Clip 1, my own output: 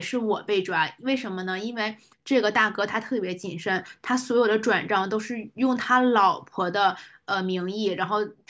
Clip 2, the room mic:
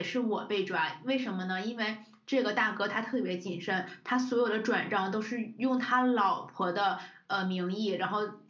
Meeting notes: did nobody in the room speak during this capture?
Yes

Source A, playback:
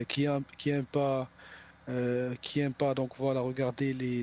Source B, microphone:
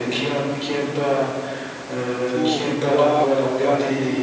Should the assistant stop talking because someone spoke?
Yes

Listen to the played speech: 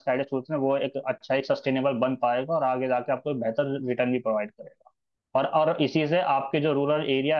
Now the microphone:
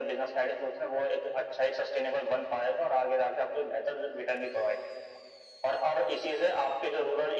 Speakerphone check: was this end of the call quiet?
Yes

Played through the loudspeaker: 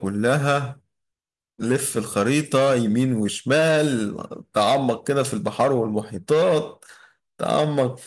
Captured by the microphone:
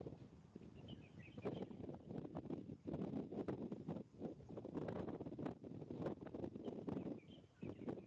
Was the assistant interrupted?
No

